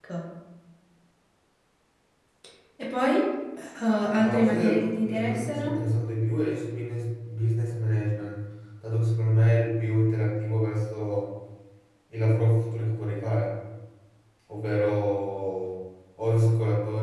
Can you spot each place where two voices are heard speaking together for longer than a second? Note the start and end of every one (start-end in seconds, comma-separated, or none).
4.1-5.7